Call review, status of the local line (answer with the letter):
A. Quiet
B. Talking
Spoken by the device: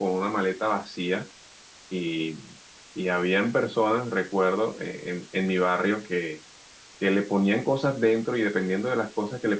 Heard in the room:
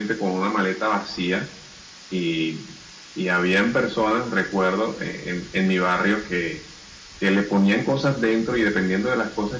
A